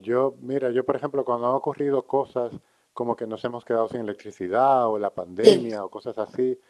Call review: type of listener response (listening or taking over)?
listening